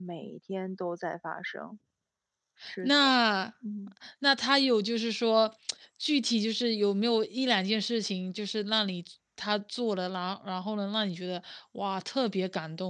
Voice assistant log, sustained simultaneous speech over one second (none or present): none